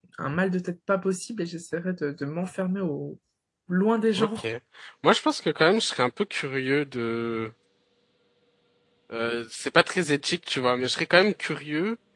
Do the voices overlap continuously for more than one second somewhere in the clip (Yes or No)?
No